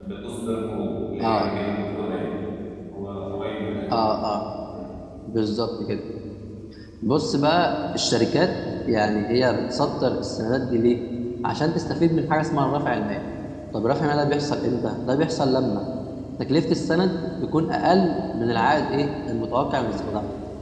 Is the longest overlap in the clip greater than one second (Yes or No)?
No